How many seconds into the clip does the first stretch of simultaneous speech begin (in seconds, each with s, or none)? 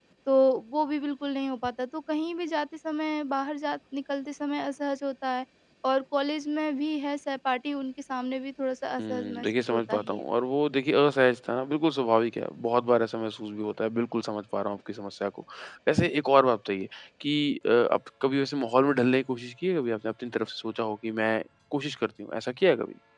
9.0 s